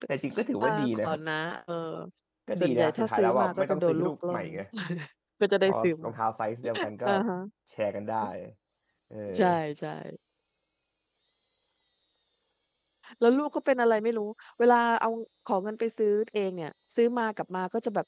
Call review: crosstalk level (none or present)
present